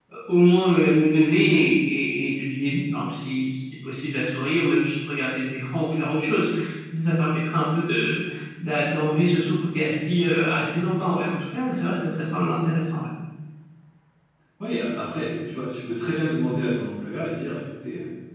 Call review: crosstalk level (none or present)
none